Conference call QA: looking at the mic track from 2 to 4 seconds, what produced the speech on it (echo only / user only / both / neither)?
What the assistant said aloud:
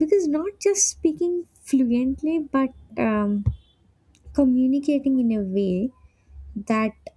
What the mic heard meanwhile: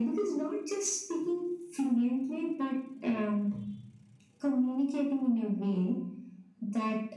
echo only